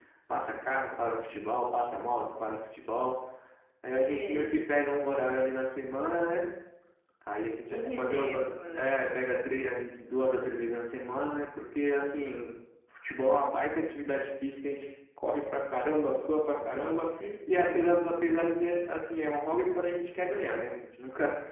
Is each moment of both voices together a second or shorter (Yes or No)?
No